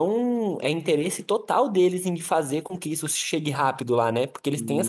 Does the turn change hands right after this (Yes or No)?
No